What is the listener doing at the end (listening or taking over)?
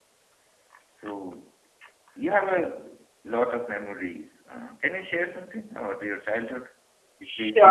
taking over